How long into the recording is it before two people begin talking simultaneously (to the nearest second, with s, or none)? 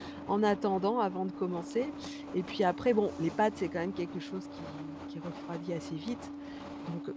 none